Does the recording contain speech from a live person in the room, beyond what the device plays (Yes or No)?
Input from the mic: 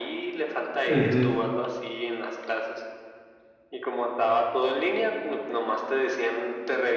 Yes